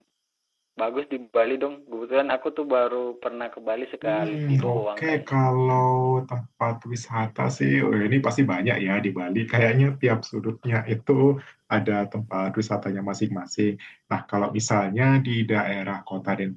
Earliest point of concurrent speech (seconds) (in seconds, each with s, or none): 4.0 s